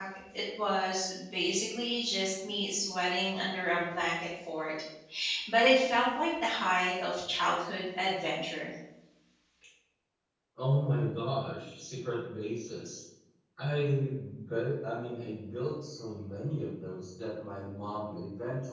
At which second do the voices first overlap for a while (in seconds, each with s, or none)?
none